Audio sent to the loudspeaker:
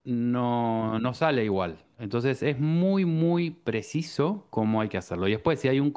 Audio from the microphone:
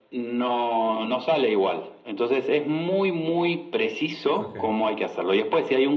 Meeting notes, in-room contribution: present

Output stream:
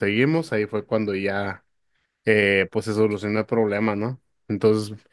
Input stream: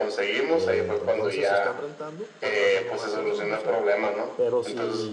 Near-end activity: present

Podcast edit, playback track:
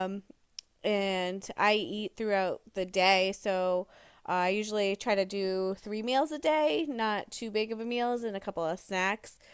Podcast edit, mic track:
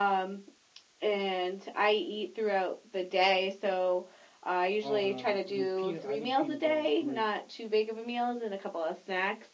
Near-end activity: present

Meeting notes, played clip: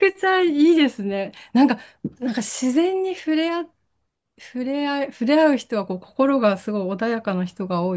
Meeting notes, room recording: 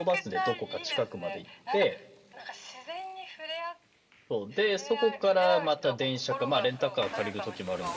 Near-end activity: present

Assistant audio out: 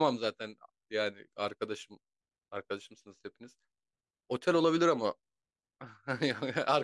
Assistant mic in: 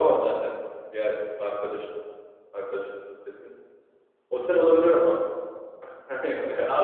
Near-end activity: none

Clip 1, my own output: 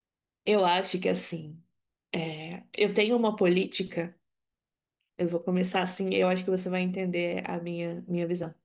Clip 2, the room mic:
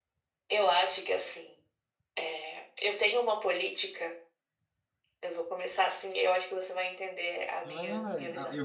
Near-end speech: present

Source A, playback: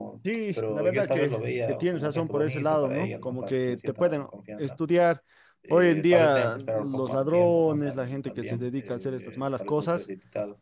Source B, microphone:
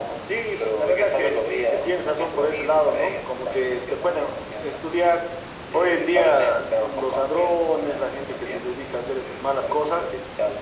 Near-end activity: none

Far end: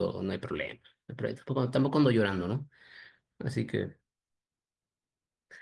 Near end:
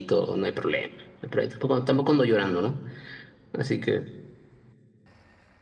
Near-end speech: none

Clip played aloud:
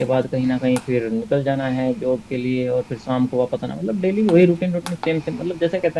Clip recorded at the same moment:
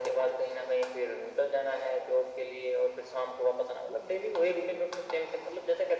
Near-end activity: none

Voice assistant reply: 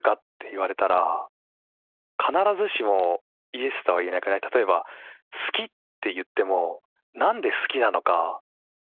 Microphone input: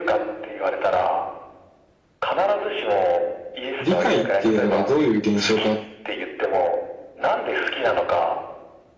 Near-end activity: present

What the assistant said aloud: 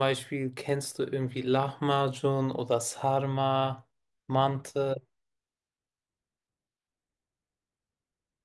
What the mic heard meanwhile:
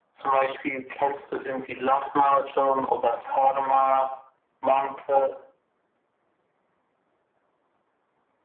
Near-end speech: none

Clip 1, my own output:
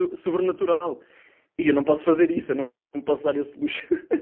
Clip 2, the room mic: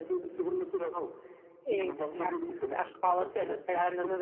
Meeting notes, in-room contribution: present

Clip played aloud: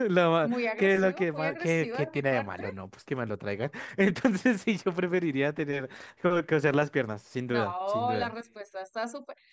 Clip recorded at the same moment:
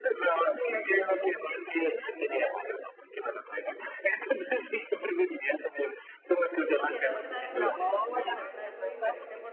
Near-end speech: present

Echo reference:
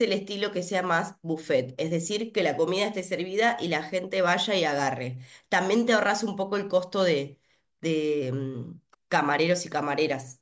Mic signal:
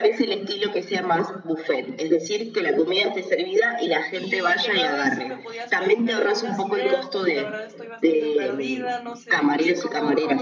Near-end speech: present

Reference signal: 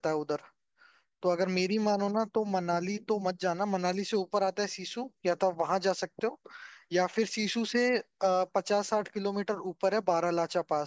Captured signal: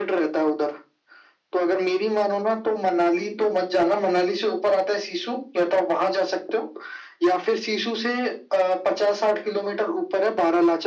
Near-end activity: none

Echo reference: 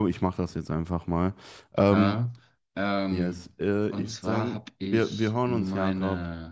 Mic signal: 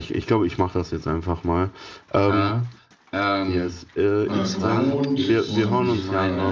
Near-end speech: present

